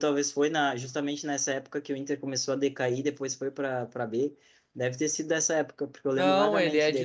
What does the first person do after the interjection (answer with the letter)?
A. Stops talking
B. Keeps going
A